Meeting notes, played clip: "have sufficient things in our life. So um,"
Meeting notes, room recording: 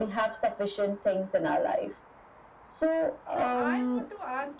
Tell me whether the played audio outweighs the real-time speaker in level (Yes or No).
Yes